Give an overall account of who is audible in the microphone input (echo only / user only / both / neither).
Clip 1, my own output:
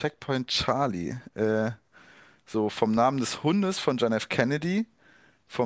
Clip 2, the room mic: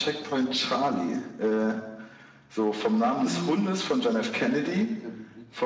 both